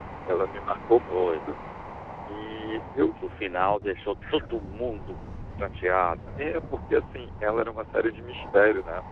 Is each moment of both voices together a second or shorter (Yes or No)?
Yes